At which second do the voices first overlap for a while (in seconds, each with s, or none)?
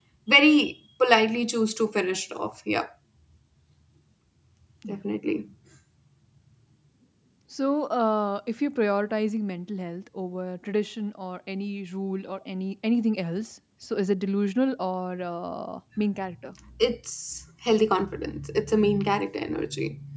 none